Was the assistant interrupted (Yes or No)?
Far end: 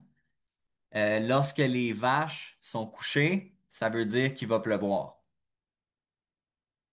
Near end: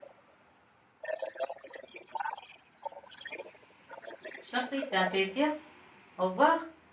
Yes